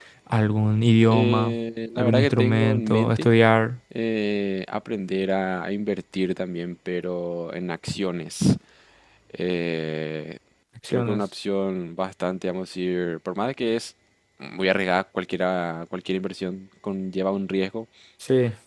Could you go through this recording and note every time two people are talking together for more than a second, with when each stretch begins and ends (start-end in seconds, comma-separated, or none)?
1.9-3.3